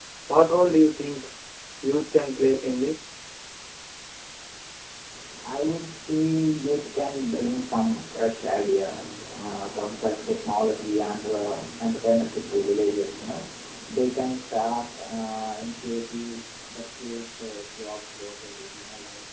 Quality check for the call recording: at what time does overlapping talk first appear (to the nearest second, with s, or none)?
none